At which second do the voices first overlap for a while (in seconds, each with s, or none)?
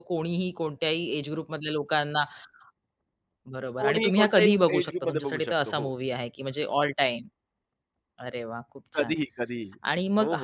3.8 s